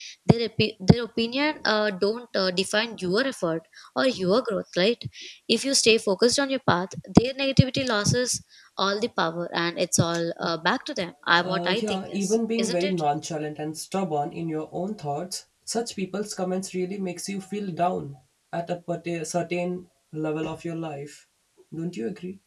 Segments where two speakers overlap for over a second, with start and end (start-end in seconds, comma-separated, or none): 11.3-12.9